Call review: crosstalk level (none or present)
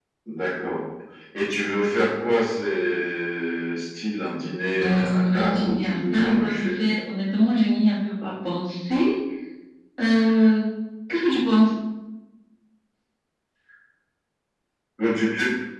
present